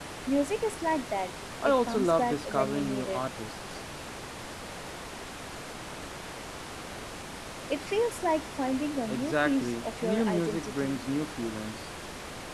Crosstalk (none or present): present